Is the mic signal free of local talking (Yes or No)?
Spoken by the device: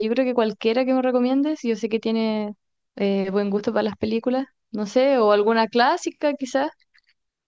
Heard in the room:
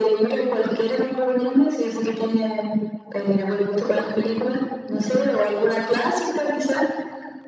Yes